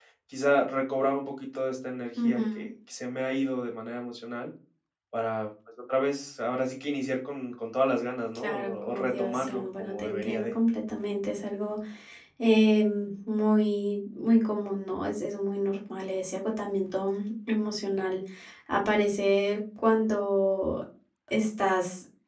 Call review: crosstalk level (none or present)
present